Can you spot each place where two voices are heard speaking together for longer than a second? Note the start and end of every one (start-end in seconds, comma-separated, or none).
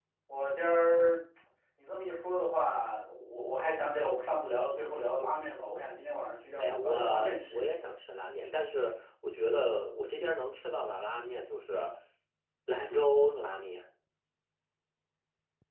6.6-7.9